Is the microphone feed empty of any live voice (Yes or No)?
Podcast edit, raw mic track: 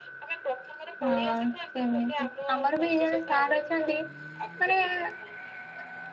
No